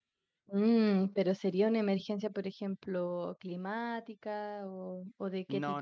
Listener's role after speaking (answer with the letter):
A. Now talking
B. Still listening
A